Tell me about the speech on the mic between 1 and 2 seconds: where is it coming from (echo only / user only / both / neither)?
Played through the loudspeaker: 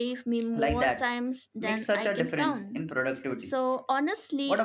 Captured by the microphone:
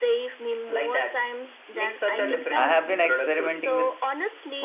echo only